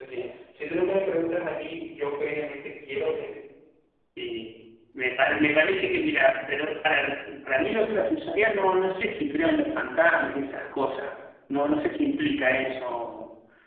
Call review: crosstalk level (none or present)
none